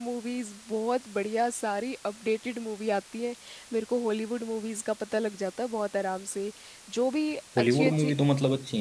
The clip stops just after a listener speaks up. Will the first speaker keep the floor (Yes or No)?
No